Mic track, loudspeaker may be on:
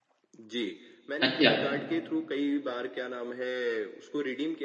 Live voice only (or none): अच्छा,